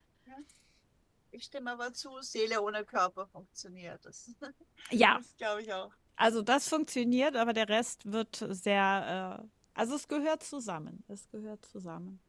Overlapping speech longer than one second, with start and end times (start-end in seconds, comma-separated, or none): none